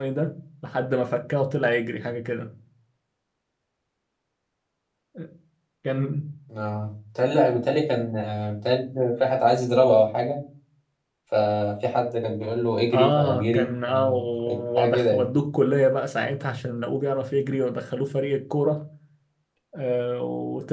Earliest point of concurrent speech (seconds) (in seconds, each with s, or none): 12.9 s